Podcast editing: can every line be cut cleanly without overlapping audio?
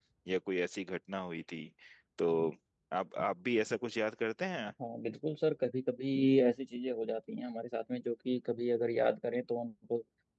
Yes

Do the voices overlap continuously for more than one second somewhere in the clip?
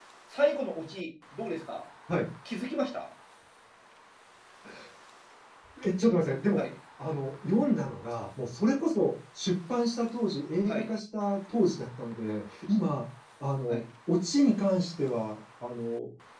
No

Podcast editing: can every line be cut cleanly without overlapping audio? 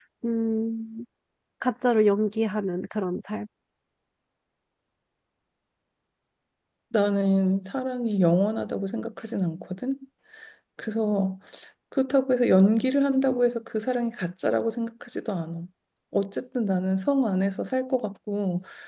Yes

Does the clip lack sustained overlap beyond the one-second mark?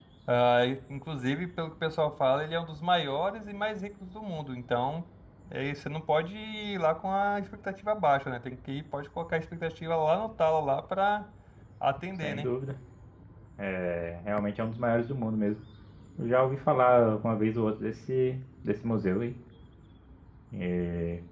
Yes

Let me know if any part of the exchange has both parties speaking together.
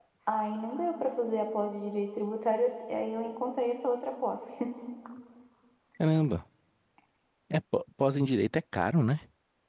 No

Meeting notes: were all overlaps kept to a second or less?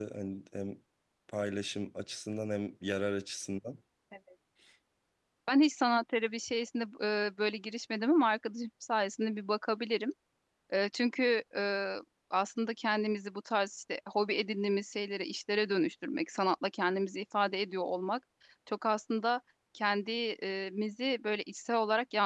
Yes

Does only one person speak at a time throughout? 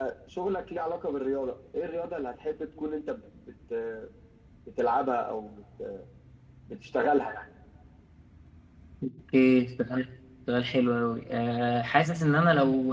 Yes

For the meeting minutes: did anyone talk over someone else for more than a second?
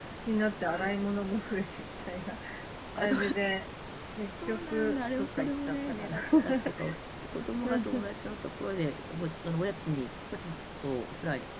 Yes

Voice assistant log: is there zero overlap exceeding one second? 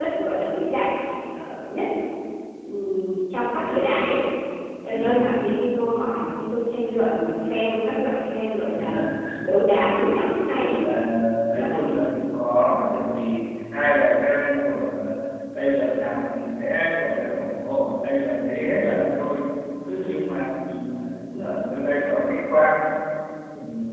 Yes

